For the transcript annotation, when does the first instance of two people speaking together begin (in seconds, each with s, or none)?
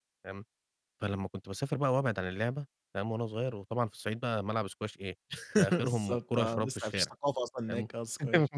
5.7 s